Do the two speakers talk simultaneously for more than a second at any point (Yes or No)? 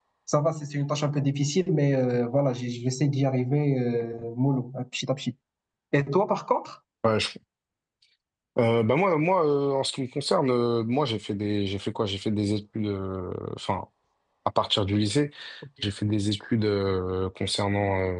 No